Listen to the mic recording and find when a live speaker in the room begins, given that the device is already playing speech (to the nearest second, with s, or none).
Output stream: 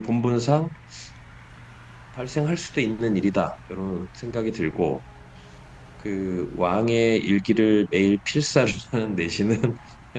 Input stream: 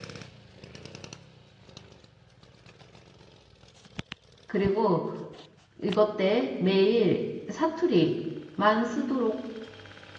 4 s